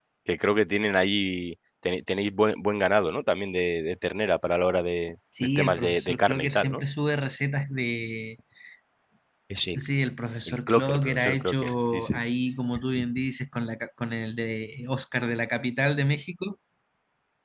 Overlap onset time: 5.4 s

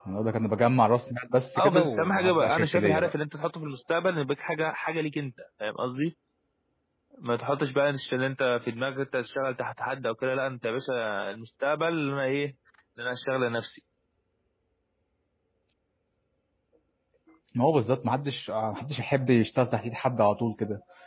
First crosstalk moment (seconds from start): 1.6 s

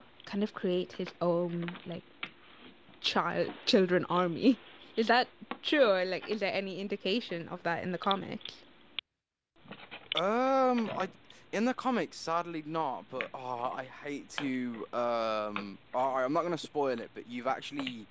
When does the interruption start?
none

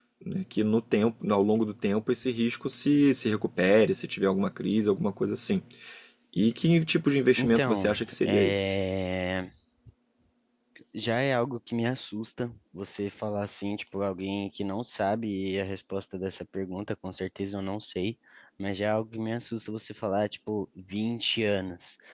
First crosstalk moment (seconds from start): 7.4 s

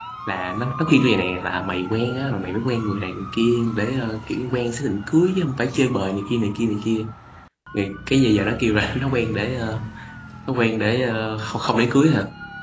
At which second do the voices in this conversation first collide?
none

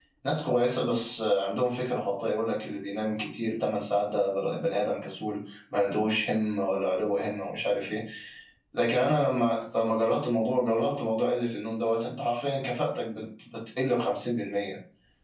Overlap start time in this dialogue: none

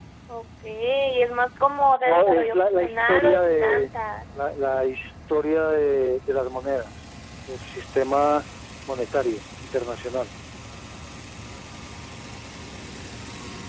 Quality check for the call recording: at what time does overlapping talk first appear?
2.0 s

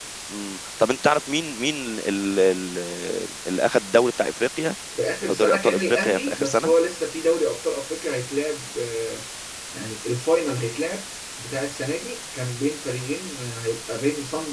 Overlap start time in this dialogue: 5.3 s

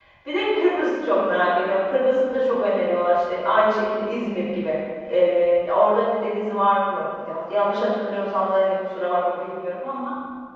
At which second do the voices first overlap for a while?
none

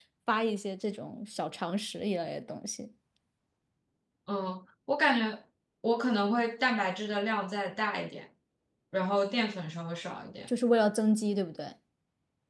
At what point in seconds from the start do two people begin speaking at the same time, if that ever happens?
none

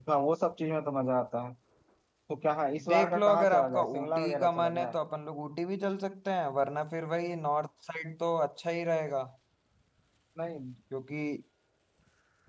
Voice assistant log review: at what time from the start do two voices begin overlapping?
2.9 s

